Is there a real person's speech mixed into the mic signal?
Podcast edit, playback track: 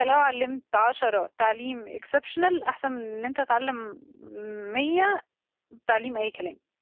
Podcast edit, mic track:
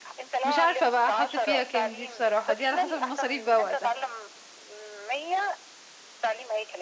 Yes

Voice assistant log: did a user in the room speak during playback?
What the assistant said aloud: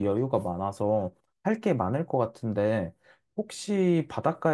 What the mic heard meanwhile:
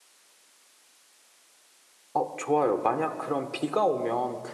Yes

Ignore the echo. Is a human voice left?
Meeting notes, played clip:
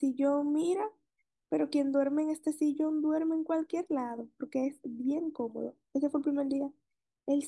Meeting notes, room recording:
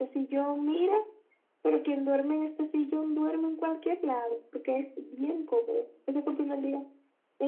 No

